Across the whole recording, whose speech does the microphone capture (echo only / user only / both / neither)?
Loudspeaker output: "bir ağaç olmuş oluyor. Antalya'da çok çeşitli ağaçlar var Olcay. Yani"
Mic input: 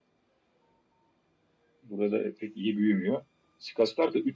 user only